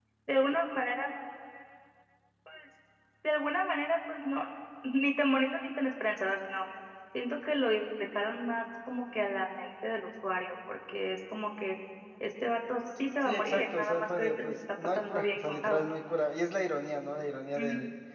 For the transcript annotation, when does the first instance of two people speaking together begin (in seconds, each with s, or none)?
13.3 s